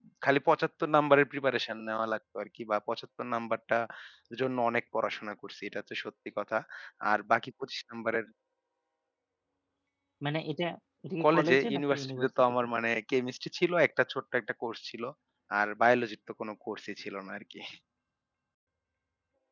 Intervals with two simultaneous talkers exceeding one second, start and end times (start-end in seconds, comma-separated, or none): 11.2-12.6